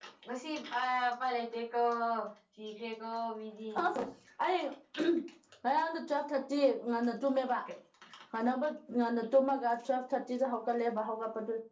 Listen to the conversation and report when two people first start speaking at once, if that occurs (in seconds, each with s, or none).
none